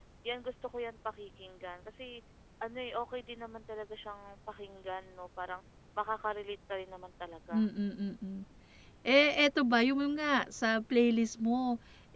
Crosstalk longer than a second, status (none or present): none